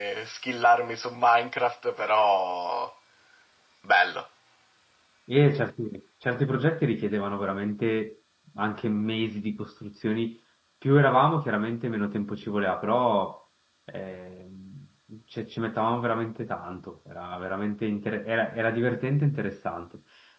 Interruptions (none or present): none